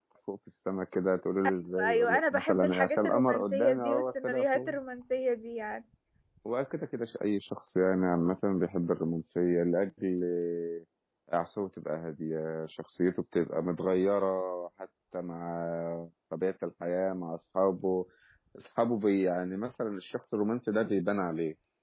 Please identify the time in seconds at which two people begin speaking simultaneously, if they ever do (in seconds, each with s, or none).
1.8 s